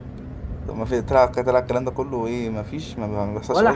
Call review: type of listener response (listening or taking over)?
taking over